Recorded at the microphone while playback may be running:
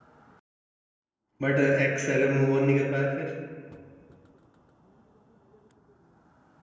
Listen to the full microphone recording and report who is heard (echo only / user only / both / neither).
user only